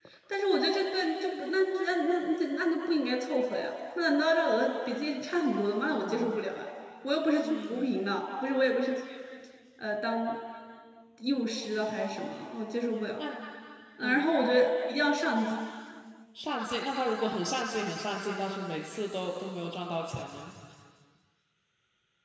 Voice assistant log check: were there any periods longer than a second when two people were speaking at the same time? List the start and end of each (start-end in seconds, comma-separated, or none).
none